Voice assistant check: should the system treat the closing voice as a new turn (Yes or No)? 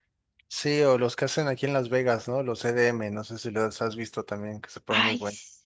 Yes